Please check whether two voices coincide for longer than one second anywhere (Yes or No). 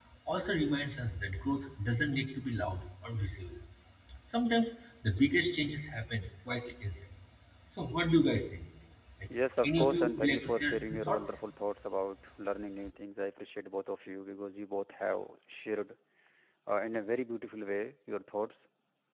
Yes